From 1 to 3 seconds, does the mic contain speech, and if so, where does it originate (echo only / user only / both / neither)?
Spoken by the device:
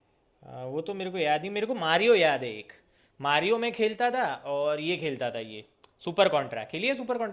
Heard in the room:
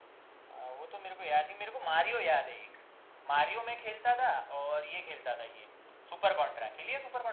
echo only